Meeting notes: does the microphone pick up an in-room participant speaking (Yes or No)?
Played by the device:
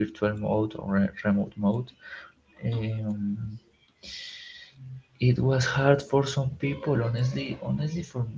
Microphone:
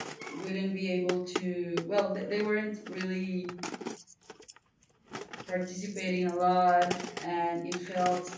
Yes